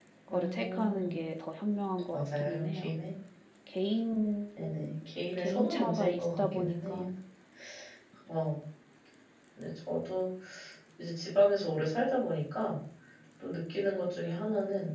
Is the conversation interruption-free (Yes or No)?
No